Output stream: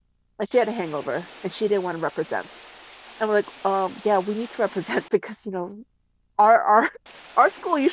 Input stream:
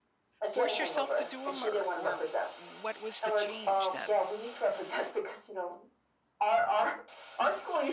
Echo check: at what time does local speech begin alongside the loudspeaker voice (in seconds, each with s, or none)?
0.5 s